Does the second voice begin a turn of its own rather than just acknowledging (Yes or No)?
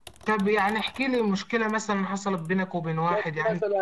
Yes